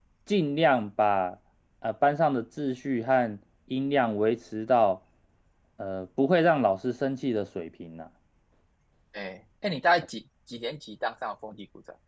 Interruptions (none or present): none